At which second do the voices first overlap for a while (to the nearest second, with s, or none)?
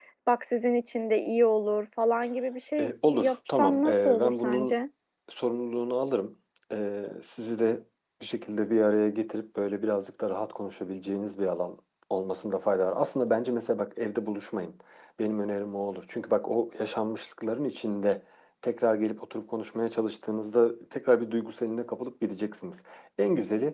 3 s